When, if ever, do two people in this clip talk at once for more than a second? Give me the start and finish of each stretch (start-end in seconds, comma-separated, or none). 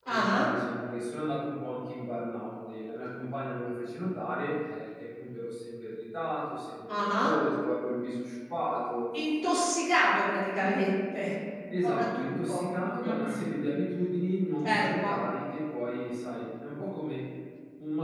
11.8-13.4